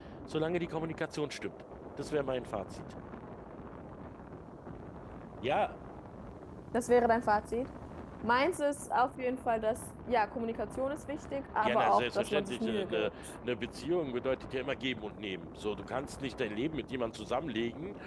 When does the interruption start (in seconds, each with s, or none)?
11.6 s